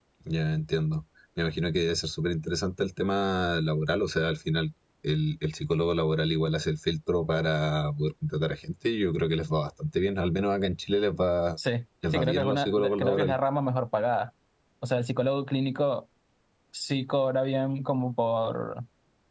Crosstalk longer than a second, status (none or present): present